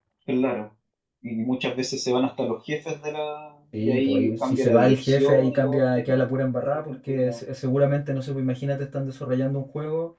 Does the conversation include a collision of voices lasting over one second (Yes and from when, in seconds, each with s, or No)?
Yes, from 3.7 s